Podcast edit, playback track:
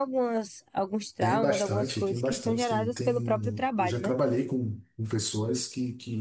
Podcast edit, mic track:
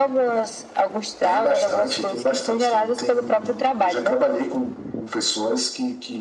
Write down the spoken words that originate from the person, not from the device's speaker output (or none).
none